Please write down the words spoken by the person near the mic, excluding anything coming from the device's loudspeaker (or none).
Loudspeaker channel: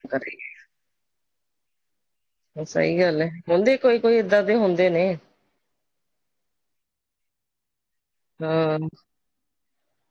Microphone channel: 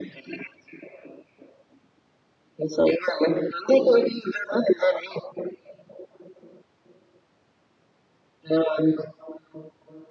none